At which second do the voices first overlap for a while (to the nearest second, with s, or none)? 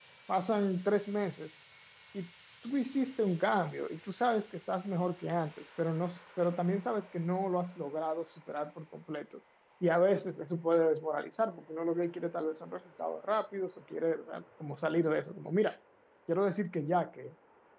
none